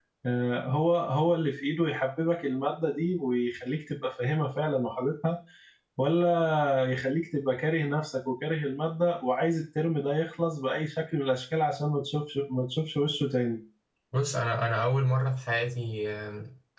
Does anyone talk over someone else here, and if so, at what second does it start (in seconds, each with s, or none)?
none